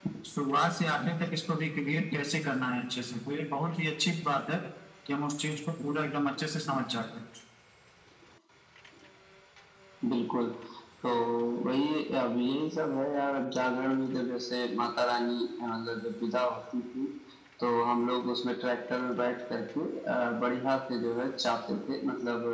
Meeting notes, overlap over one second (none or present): none